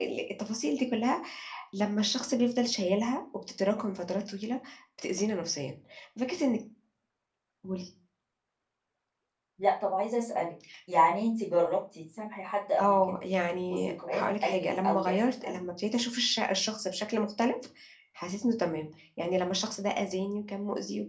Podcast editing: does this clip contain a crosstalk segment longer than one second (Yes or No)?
Yes